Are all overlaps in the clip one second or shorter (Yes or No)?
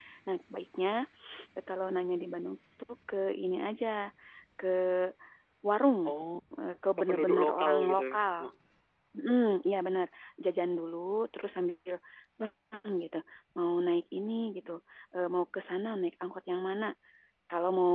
No